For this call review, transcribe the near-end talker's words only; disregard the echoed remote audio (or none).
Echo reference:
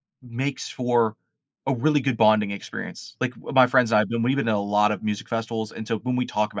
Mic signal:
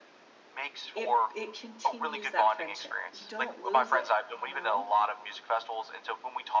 it it continues that friendship, you don't lose it, you know,